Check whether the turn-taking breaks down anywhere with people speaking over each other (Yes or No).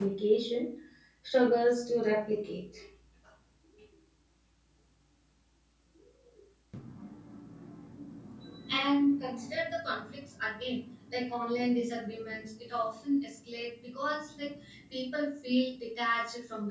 No